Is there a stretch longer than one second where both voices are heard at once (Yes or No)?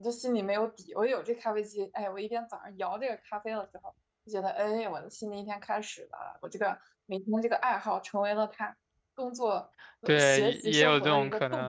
Yes